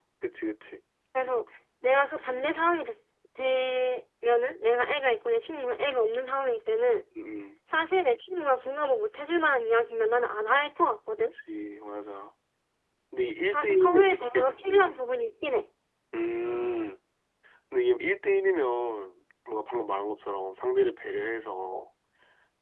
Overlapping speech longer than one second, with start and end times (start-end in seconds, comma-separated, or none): 13.5-15.0